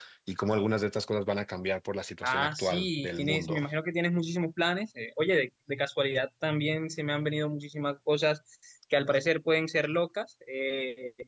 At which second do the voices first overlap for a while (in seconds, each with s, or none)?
2.2 s